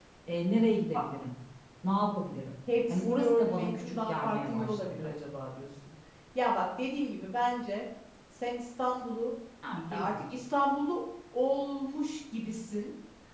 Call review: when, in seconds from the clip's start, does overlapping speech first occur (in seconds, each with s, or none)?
2.7 s